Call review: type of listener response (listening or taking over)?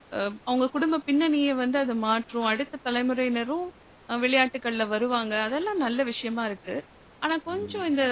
listening